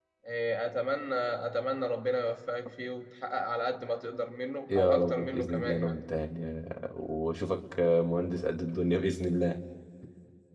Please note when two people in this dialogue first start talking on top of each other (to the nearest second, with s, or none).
5 s